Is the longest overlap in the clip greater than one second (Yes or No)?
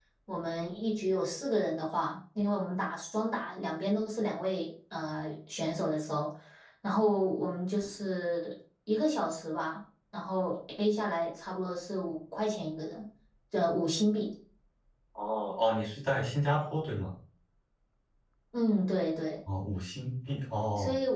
No